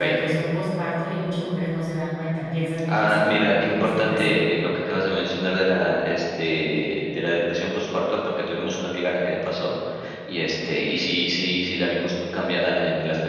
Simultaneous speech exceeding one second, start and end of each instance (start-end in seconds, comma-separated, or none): 2.9-4.4